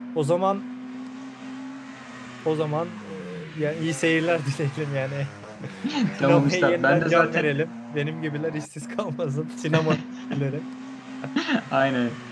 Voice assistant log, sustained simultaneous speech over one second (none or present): present